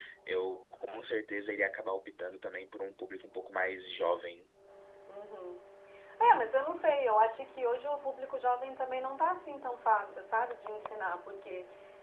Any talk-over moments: No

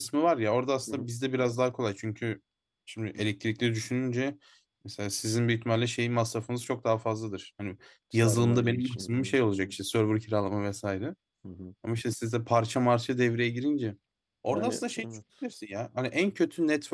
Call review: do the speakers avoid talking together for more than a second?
No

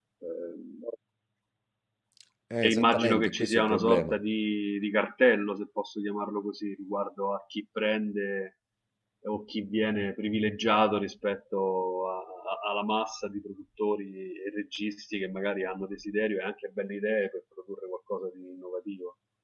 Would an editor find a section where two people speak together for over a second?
Yes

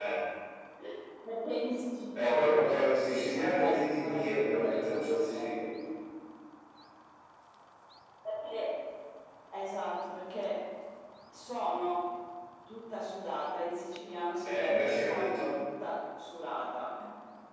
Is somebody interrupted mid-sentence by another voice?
Yes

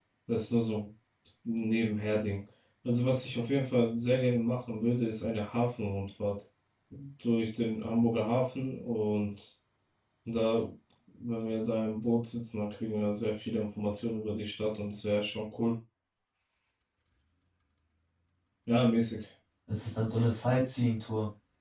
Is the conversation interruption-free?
Yes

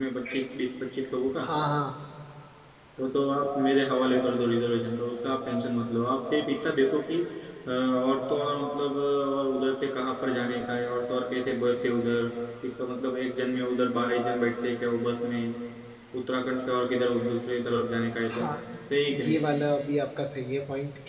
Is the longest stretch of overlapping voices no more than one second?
Yes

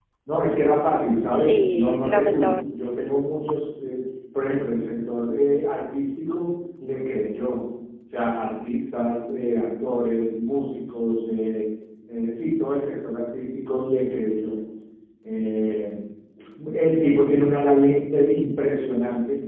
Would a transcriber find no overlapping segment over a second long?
No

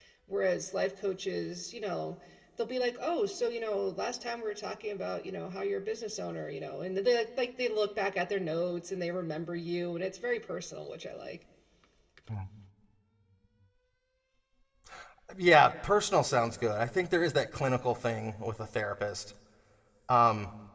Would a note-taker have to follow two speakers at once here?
No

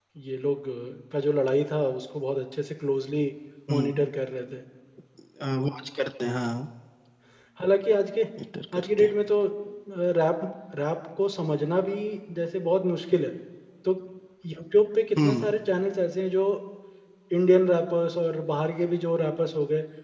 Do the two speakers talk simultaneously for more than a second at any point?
No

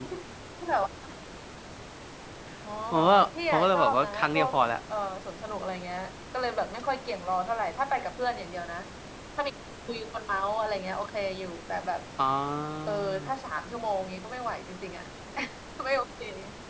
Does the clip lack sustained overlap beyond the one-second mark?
No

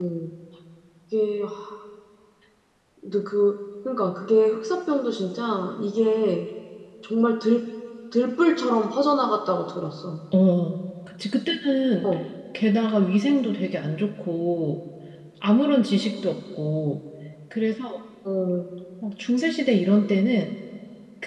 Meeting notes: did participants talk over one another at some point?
No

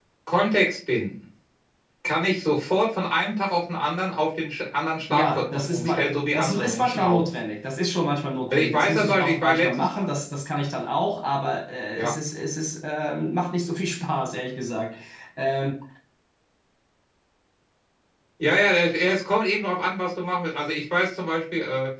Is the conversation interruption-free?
No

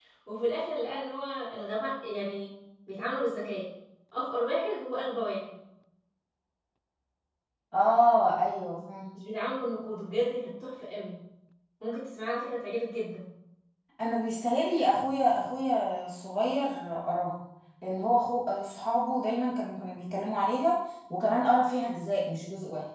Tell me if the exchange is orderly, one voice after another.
Yes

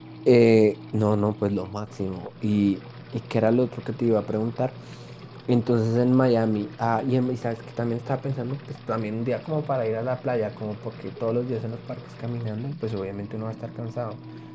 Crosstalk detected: No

